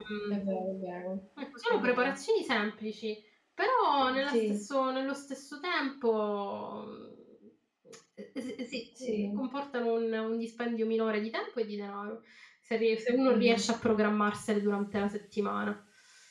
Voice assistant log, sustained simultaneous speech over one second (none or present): none